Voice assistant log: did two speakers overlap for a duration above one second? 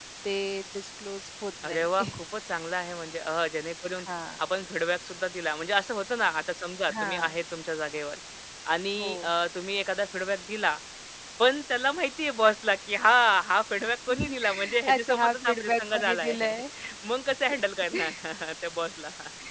Yes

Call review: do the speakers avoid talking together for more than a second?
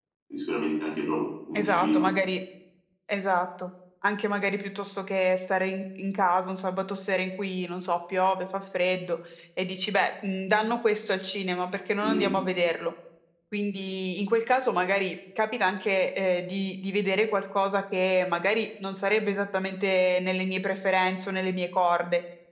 Yes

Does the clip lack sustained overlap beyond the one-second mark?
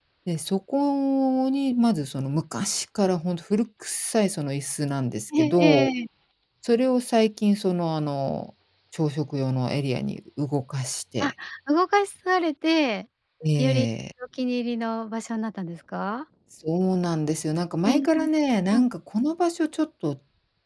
Yes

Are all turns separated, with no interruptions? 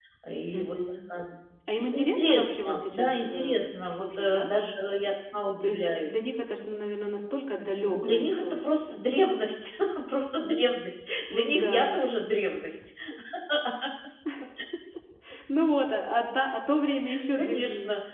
No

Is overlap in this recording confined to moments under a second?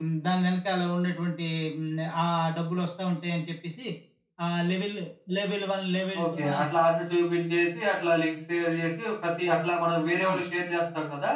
Yes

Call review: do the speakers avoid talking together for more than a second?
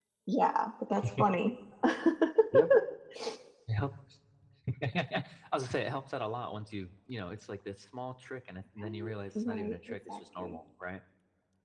No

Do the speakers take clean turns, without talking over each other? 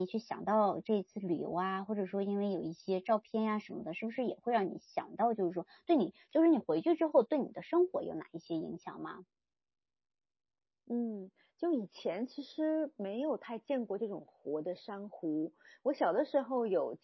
Yes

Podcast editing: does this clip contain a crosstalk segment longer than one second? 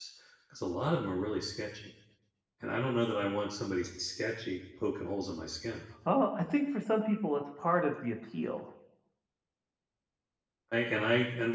No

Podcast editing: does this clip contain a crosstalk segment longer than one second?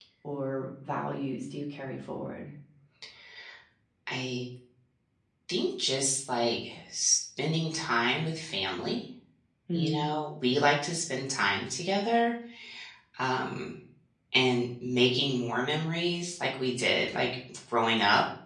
No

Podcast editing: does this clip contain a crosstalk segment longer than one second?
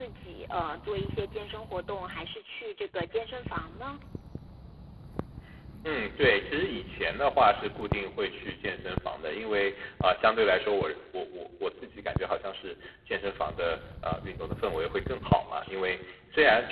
No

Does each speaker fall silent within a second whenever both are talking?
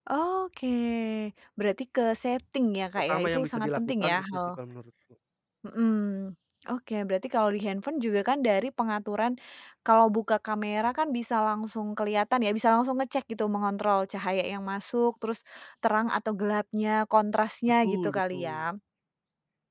No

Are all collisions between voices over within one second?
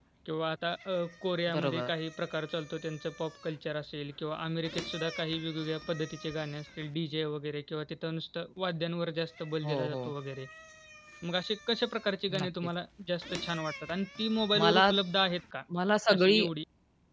Yes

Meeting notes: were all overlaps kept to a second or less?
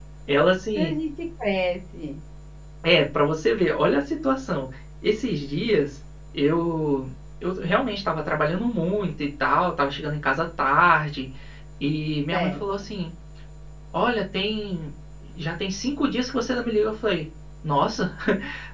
Yes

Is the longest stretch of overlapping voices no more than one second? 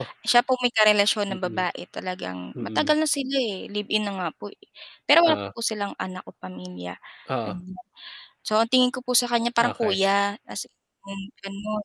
Yes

